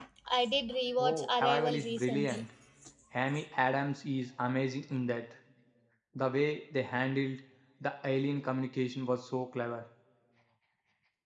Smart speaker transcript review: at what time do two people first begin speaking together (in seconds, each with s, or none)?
1.0 s